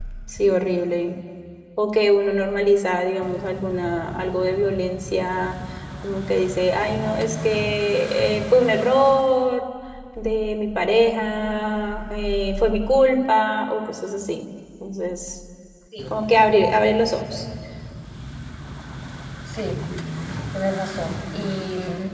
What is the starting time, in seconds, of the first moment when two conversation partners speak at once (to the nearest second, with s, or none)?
none